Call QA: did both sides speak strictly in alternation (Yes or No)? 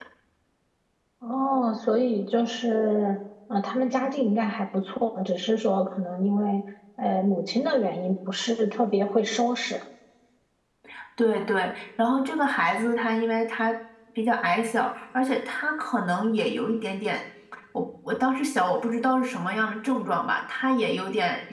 Yes